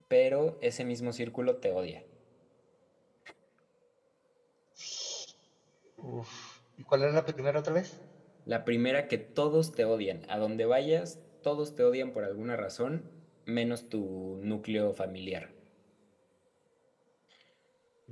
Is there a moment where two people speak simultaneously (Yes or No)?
No